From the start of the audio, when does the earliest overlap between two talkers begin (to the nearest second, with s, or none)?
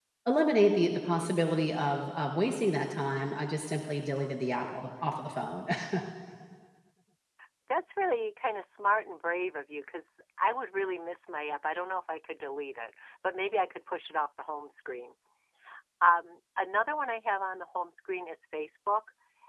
none